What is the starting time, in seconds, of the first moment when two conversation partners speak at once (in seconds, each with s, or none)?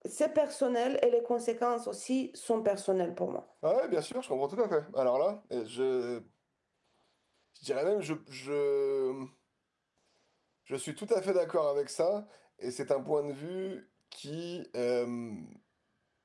none